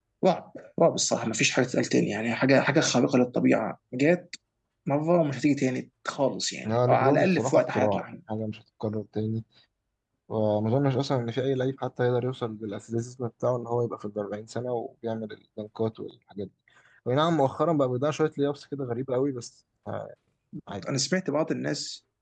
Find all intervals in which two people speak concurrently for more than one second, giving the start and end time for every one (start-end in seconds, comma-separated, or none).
6.7-8.1